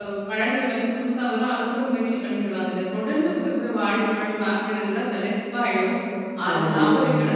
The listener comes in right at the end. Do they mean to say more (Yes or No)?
No